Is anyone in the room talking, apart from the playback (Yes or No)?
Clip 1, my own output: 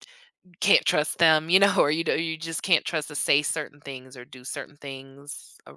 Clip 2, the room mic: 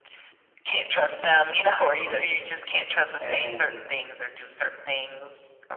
Yes